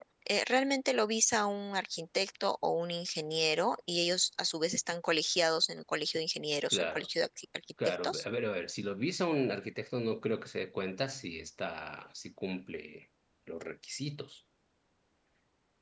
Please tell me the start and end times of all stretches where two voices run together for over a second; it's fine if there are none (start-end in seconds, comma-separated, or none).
none